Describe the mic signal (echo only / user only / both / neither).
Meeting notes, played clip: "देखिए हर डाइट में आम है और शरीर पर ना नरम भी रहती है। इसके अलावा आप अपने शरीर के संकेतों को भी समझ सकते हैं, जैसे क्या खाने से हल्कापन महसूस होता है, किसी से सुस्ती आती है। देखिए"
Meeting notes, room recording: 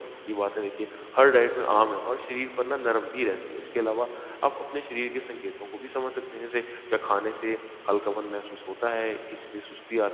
echo only